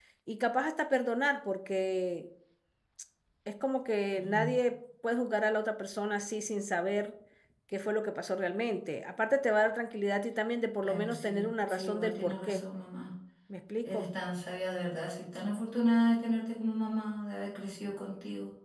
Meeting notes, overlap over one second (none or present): present